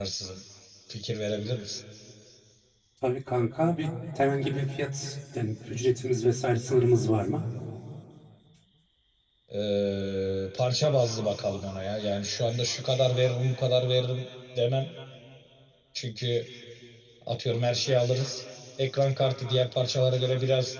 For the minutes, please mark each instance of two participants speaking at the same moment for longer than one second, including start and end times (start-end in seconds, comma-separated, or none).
none